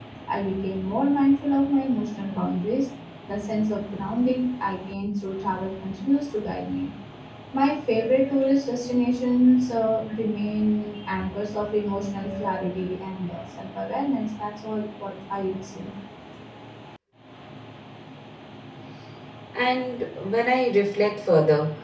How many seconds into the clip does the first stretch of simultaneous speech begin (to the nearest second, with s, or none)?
none